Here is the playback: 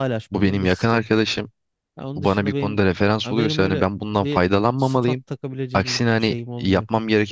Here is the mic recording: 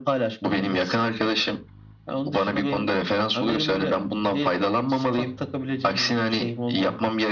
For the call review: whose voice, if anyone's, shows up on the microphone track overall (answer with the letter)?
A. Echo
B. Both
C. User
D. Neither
A